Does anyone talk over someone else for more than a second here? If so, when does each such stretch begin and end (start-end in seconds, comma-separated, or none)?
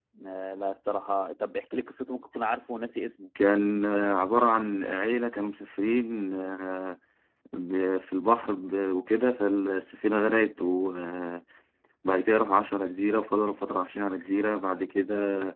none